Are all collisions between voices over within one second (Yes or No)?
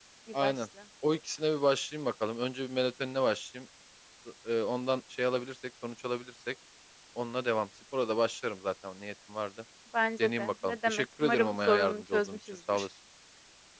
No